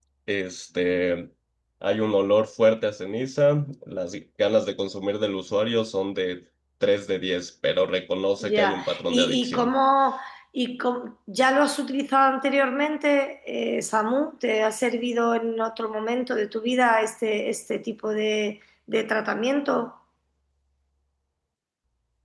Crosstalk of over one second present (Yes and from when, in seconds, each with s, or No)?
Yes, from 8.4 s